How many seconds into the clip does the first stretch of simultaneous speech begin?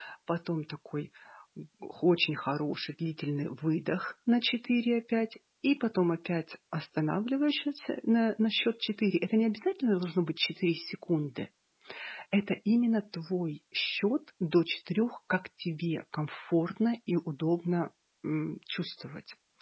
none

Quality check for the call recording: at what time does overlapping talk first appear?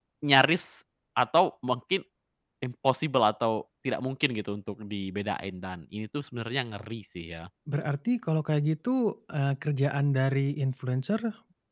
none

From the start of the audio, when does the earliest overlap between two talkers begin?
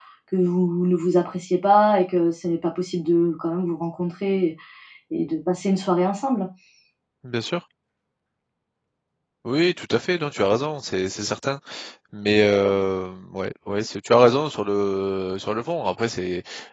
none

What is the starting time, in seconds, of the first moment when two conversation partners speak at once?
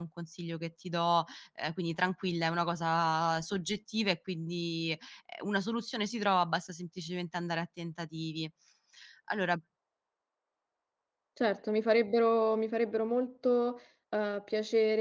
none

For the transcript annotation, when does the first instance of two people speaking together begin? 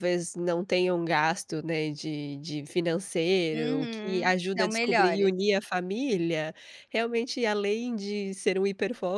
3.5 s

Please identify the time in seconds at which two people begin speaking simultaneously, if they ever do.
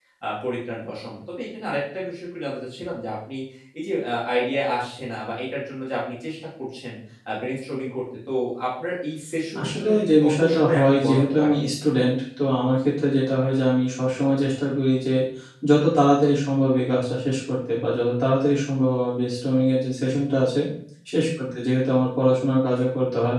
9.6 s

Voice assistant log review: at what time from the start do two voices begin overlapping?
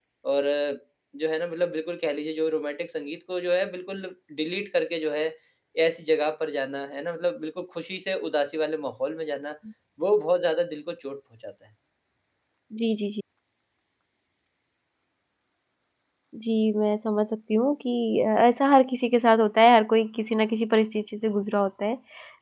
none

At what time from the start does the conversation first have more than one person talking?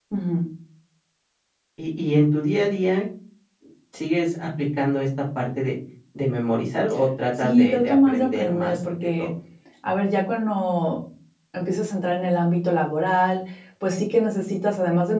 7.4 s

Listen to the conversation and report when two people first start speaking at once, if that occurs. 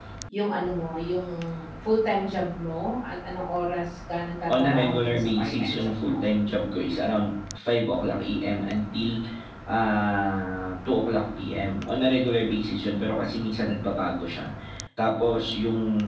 4.5 s

